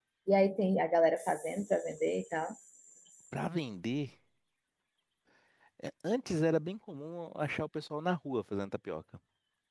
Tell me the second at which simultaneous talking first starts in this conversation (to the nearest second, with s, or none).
none